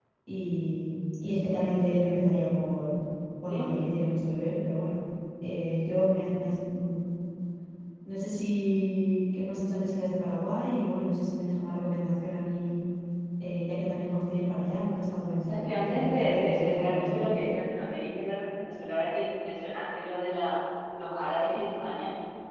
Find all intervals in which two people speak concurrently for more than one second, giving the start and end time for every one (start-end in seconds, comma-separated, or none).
15.3-17.2